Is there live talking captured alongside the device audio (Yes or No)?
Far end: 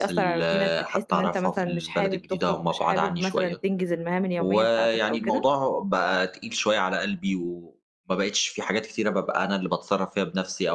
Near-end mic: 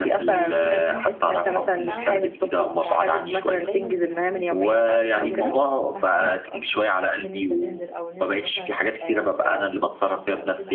Yes